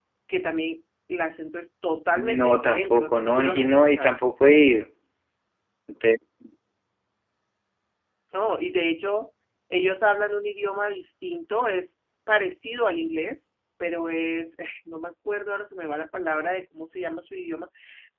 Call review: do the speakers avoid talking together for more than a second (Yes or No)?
No